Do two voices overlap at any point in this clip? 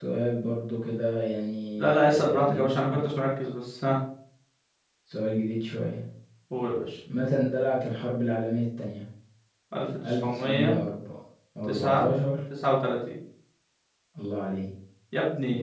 Yes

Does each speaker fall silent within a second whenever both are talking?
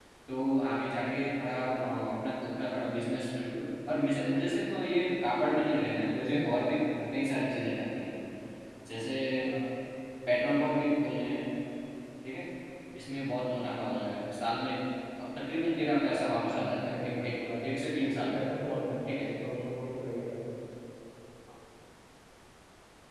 No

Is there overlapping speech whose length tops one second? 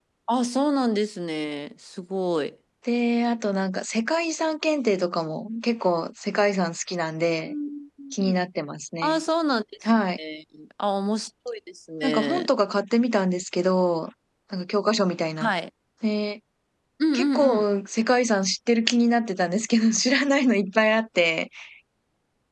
No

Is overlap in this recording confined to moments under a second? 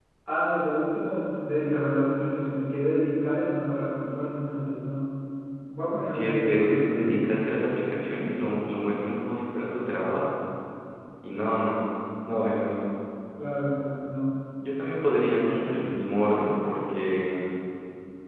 No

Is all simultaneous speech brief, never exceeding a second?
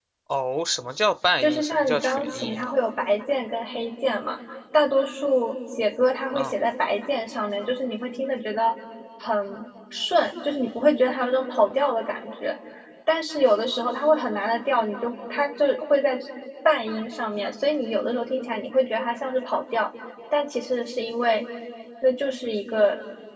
No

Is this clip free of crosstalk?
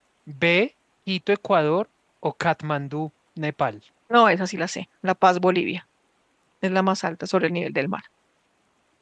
Yes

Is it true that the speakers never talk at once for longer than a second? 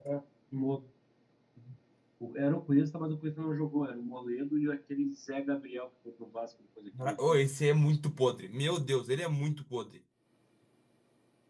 Yes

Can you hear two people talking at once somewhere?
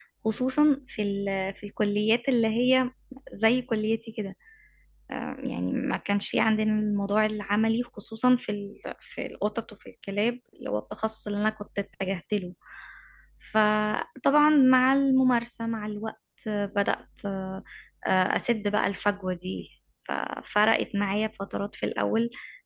No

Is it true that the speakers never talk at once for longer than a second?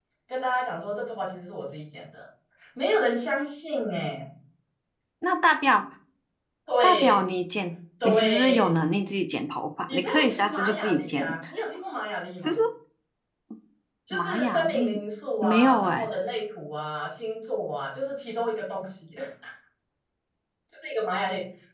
No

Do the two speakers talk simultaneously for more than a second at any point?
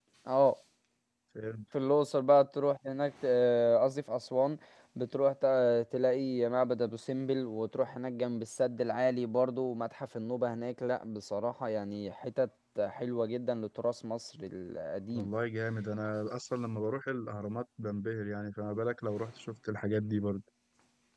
No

